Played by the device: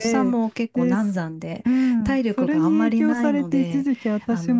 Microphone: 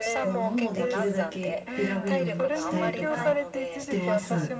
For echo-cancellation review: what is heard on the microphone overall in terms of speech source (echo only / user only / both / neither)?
both